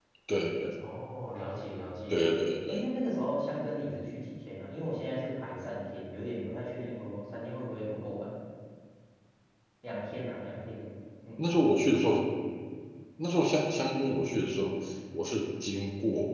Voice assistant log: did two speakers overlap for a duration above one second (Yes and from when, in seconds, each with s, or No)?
No